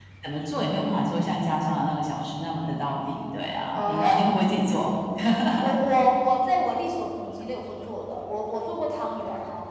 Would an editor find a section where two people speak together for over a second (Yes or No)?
No